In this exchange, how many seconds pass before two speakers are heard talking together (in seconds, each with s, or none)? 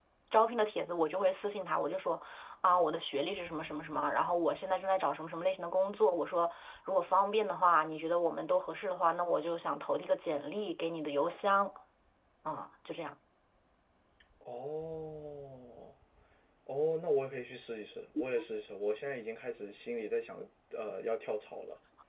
none